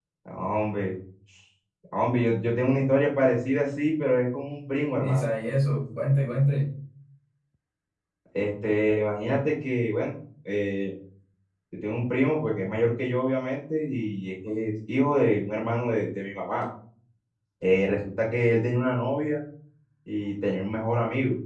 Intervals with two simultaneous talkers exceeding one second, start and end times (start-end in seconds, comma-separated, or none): none